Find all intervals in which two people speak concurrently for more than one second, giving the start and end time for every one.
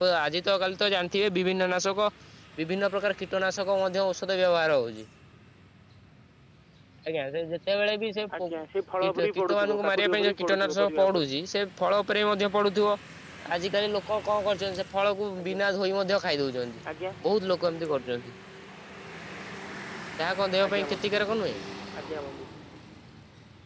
9.0-11.3

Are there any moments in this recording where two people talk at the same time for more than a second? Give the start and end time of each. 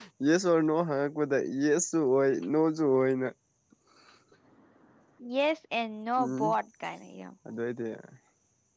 none

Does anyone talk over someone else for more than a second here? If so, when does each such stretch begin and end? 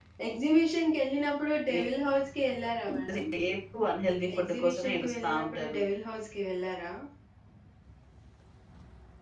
4.4-5.8

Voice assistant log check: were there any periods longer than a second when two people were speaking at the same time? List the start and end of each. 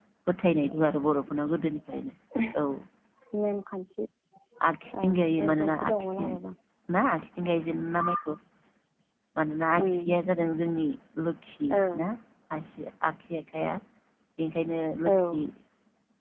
5.0-6.2

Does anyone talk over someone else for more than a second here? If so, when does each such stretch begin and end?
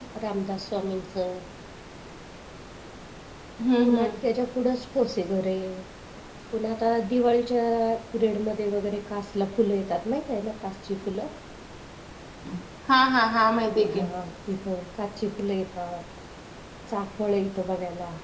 none

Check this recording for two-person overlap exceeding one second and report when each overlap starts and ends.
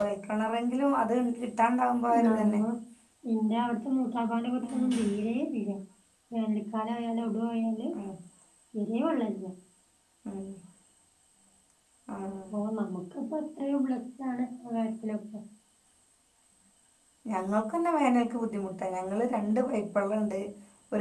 none

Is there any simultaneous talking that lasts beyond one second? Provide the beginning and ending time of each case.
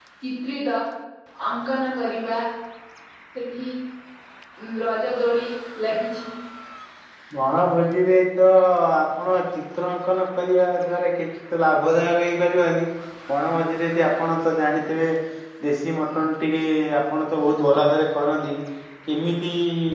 none

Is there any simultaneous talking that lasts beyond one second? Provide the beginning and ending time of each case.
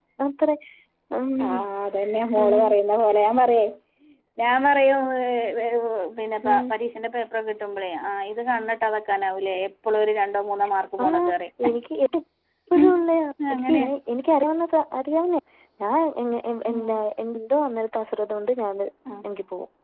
none

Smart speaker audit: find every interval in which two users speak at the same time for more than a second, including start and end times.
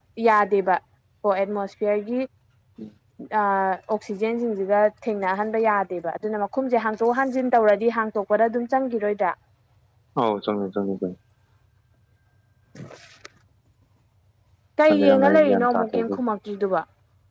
14.9-16.1

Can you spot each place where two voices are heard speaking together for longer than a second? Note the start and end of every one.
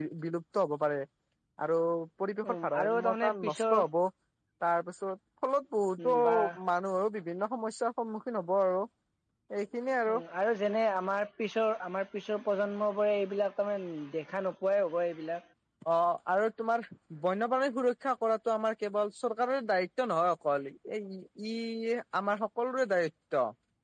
2.5-3.7

